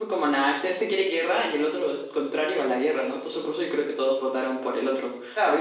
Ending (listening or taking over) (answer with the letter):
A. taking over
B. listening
A